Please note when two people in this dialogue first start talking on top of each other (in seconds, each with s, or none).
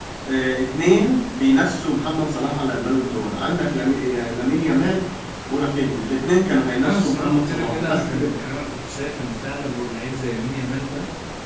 6.8 s